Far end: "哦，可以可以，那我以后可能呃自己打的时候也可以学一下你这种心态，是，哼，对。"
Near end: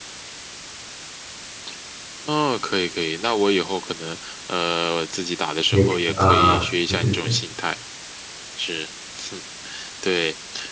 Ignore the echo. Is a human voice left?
Yes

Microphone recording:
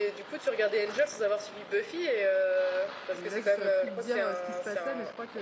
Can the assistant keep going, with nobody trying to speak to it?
No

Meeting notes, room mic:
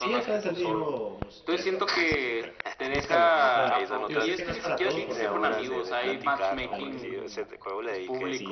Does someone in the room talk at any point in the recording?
Yes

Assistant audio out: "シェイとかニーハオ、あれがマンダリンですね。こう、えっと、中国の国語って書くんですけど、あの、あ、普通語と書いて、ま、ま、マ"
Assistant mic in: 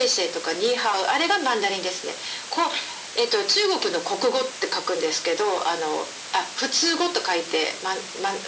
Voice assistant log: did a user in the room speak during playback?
No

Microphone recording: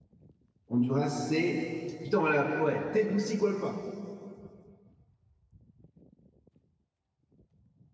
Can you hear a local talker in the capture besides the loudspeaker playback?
Yes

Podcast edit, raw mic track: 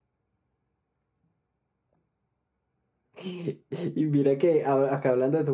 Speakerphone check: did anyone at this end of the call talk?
Yes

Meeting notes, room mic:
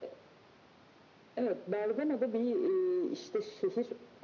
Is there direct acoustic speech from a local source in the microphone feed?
No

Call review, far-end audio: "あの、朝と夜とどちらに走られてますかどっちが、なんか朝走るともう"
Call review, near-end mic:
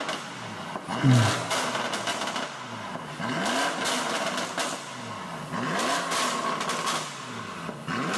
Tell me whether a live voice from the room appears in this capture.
Yes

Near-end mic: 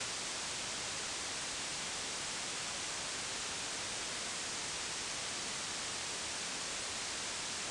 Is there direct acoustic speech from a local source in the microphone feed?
No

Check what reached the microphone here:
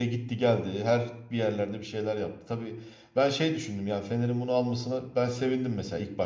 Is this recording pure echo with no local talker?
No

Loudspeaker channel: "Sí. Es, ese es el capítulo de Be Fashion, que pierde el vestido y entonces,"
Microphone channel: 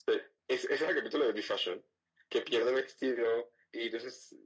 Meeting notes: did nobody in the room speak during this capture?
Yes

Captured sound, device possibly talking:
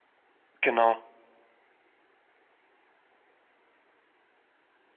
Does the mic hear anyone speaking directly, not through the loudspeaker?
Yes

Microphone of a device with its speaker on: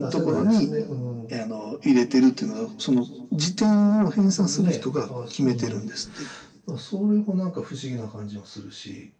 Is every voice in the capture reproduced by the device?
No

